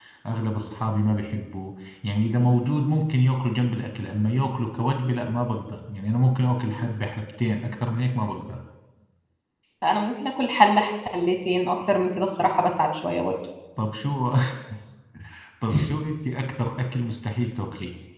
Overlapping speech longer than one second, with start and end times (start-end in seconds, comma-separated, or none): none